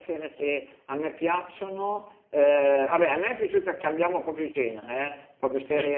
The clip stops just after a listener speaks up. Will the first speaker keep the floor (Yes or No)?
Yes